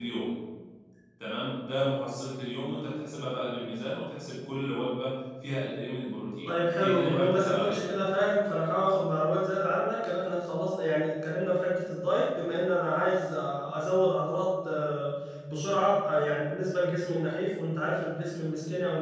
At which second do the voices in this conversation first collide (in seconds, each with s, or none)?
6.4 s